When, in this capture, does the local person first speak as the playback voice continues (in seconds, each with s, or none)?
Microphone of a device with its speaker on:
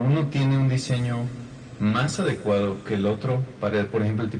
none